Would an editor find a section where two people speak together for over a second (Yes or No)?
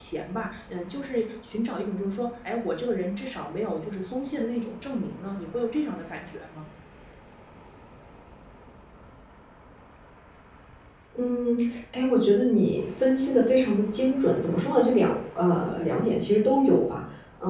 No